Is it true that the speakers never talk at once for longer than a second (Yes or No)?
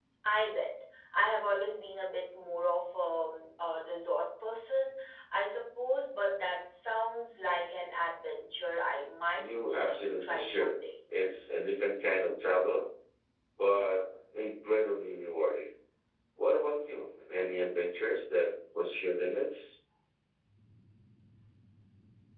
No